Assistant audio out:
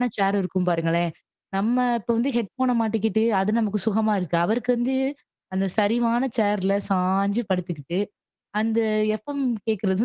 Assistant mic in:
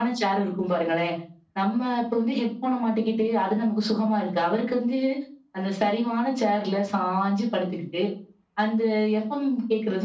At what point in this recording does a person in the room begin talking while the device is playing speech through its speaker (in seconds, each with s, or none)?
none